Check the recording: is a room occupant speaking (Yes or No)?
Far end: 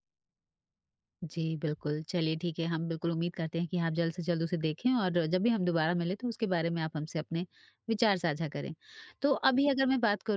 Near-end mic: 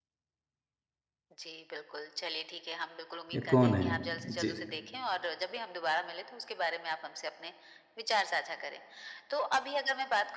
Yes